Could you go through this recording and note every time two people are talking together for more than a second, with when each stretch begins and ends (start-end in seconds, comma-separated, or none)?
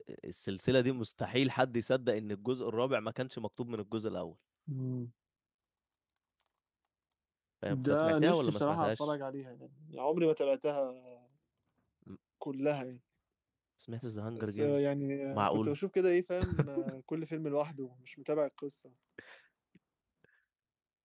7.7-9.1